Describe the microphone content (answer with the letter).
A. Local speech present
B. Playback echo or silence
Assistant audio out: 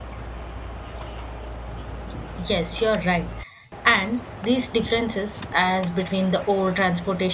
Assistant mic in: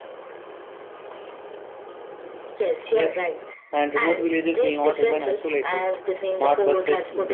A